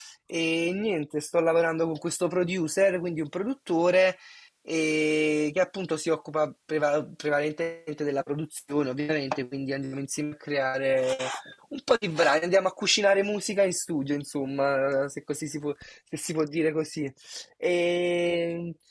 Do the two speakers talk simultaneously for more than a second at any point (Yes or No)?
No